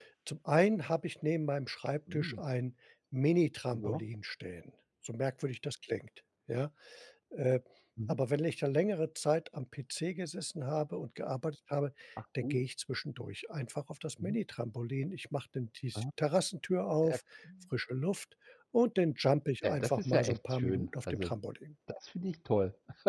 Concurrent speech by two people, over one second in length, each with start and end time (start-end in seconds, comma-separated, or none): 19.6-21.3